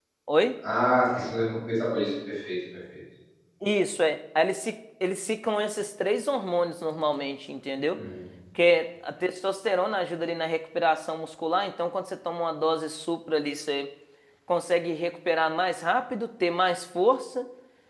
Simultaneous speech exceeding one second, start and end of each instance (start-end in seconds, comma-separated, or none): none